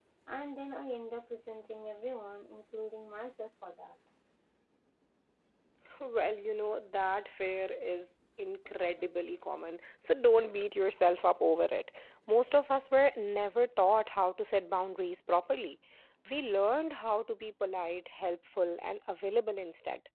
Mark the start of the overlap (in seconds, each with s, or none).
none